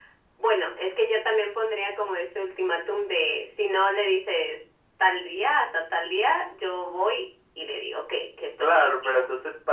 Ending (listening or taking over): taking over